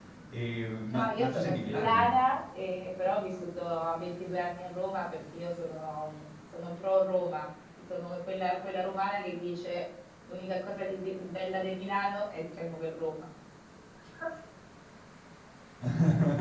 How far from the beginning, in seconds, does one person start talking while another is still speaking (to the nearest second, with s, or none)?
1 s